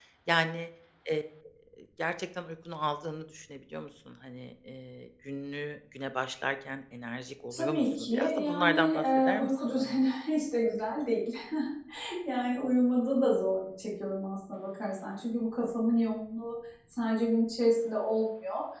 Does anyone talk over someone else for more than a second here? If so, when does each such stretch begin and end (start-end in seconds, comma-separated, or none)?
7.5-10.0